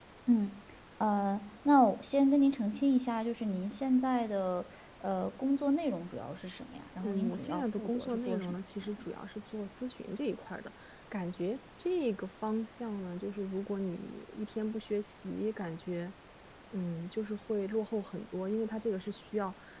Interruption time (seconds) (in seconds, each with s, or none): 7.0 s